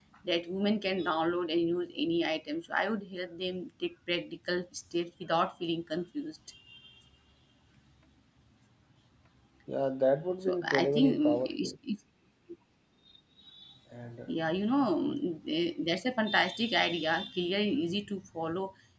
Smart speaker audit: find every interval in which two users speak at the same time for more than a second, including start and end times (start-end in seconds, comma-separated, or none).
10.5-11.7